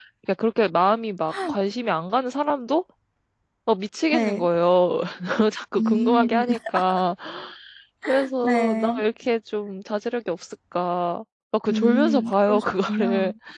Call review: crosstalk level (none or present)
present